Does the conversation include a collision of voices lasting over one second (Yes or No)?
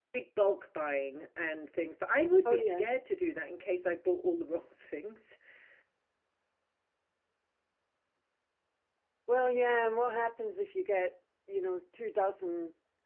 No